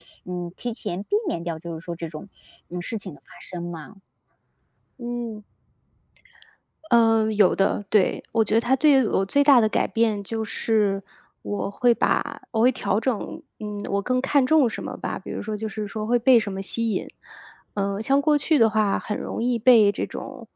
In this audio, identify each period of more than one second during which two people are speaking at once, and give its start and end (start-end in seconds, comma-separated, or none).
none